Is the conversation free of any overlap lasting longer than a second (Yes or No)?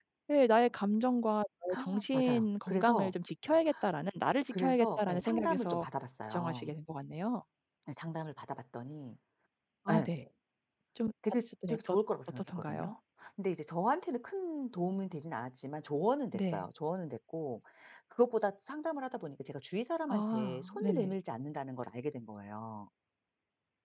No